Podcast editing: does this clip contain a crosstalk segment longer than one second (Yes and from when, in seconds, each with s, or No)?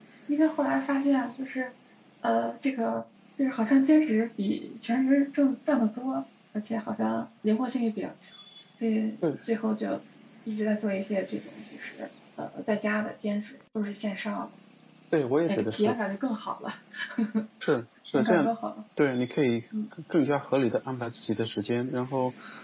No